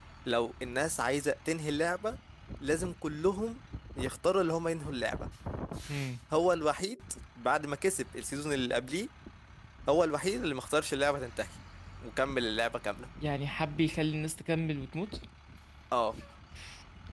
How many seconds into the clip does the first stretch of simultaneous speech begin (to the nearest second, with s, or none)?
none